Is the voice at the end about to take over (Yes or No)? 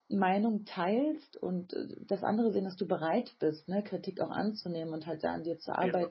No